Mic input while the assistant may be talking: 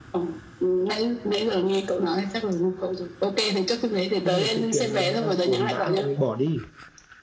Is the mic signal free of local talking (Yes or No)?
No